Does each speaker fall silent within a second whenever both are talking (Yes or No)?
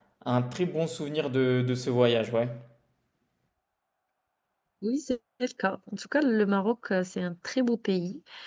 Yes